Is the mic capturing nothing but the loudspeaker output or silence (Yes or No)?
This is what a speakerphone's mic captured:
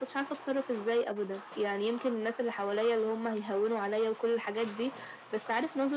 Yes